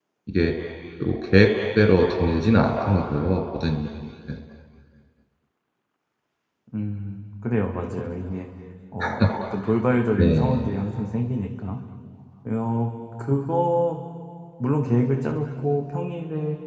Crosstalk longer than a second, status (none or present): none